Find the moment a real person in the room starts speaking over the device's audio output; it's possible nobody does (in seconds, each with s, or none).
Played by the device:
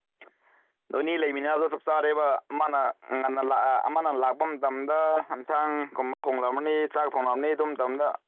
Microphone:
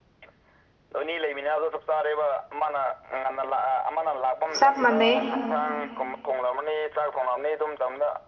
4.6 s